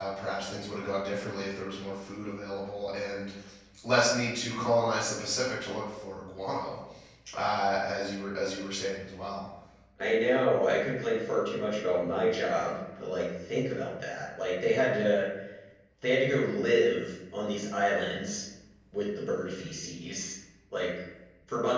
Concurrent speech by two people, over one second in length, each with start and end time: none

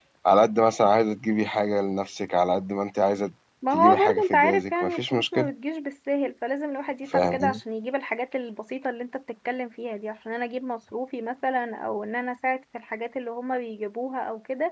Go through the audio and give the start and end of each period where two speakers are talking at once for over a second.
3.7-5.5

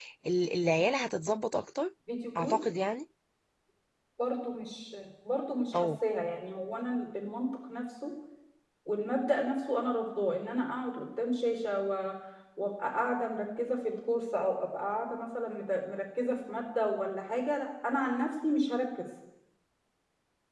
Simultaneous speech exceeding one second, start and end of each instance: none

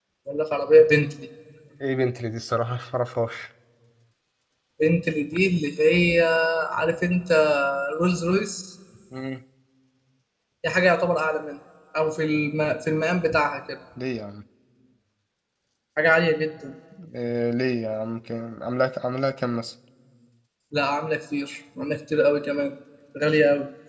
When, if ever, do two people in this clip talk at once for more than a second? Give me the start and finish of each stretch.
none

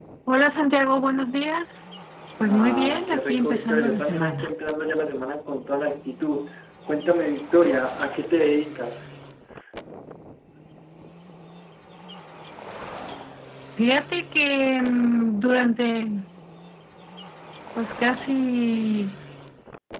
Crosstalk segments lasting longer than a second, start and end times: 2.4-4.5

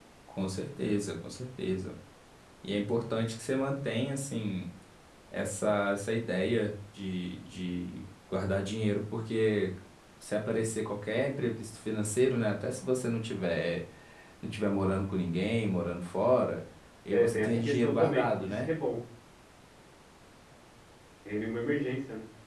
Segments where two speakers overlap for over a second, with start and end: 17.1-18.7

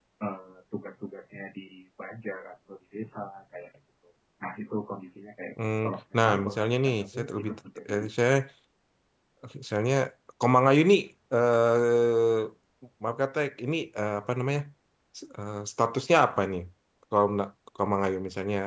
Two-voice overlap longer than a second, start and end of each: 6.2-7.5

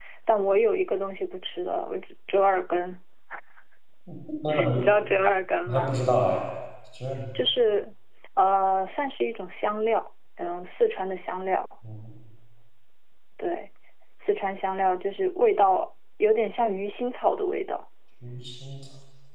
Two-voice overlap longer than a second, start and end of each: none

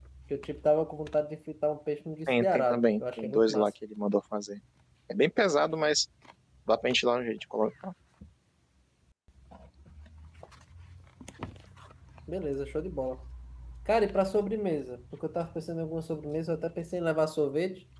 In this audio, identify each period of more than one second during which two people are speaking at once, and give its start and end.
2.3-3.7

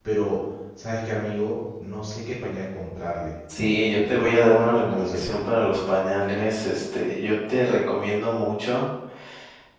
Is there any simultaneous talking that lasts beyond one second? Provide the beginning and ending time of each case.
4.0-5.3

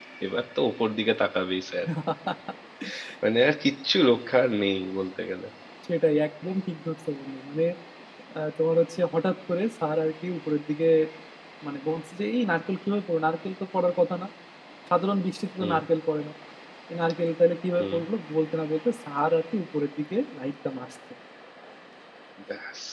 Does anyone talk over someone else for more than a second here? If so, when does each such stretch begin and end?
none

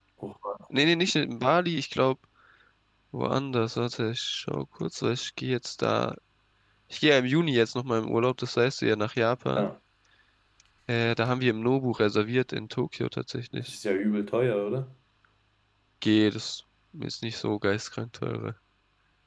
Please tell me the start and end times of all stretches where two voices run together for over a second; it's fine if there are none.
none

